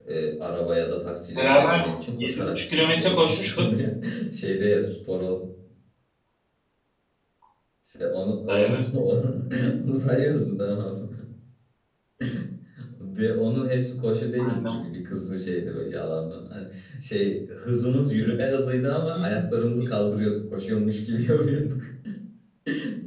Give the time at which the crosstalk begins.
1.4 s

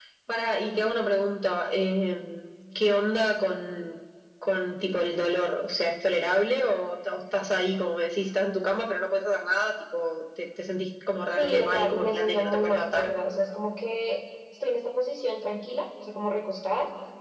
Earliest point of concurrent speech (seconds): 11.3 s

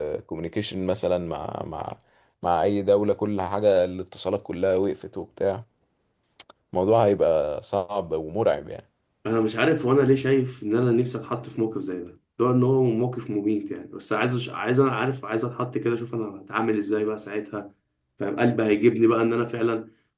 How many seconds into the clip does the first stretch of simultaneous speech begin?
none

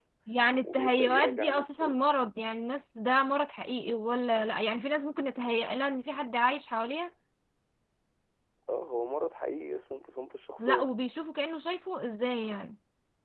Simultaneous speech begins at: 0.6 s

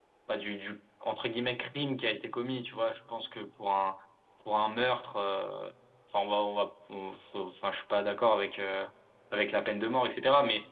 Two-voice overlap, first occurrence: none

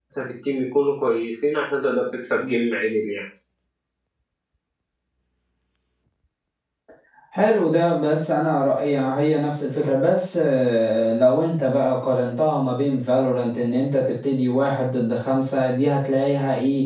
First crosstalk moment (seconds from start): none

